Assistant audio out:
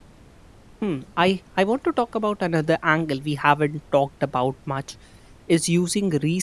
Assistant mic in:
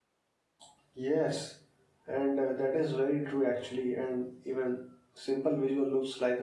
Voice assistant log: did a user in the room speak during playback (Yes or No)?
Yes